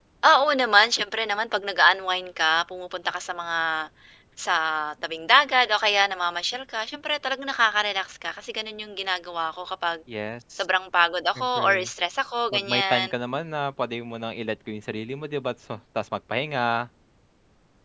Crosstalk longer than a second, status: none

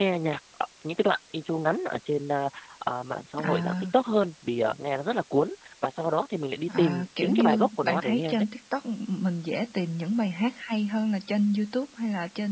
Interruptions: present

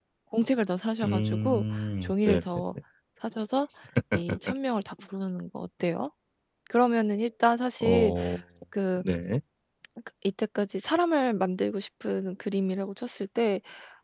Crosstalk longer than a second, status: present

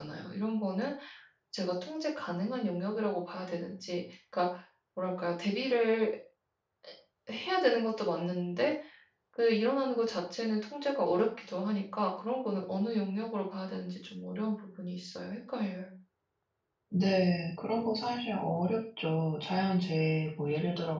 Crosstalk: none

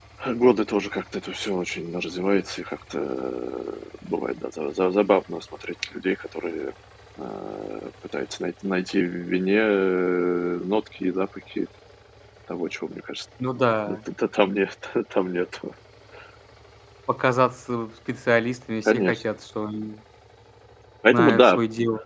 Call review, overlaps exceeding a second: none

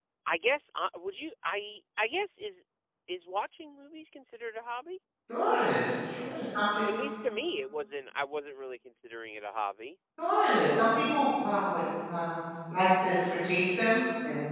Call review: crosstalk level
none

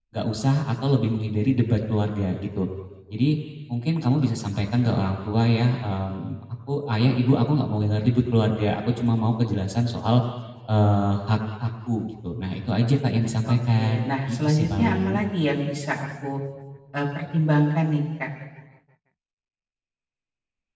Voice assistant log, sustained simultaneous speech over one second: present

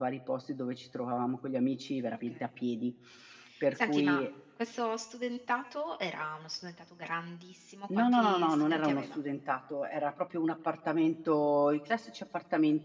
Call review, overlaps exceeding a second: present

